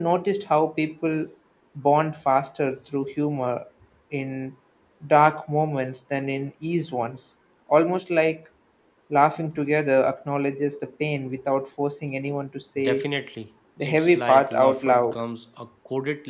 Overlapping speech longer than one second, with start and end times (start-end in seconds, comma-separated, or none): 13.8-15.2